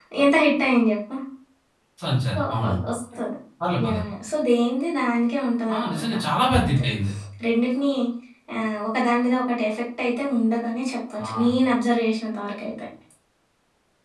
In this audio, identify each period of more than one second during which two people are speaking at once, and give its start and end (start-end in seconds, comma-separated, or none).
none